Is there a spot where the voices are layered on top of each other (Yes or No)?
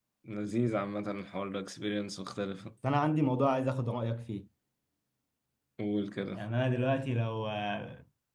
No